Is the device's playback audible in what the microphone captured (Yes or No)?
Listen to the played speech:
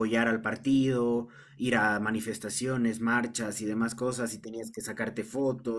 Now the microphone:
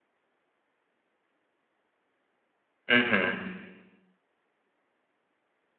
No